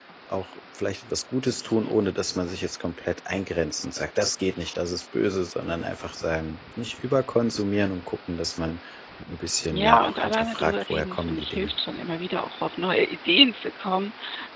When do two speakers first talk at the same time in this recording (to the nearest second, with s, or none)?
10 s